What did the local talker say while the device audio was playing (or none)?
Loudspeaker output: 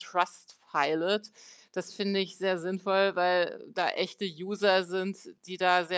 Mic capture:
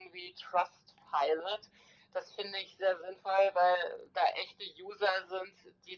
none